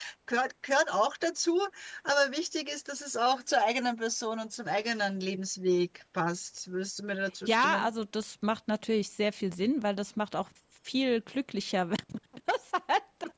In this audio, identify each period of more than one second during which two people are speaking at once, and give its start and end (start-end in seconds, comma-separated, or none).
none